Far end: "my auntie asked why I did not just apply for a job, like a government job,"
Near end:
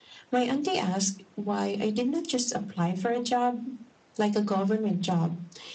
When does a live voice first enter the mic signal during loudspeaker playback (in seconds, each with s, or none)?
none